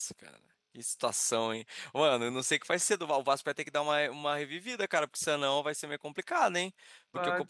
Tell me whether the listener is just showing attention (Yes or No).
Yes